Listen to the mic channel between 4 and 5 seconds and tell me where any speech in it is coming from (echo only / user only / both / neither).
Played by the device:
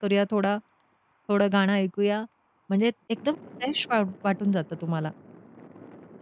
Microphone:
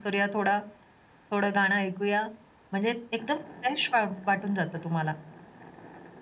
echo only